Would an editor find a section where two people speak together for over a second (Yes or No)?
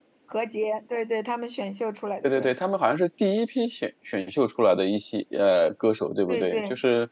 No